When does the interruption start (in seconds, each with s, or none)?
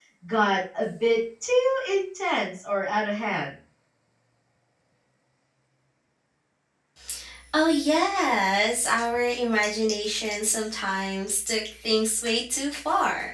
none